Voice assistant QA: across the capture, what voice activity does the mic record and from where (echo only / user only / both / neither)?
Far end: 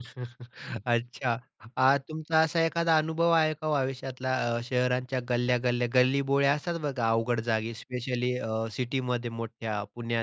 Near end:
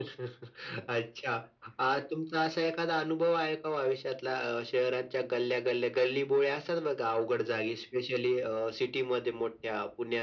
echo only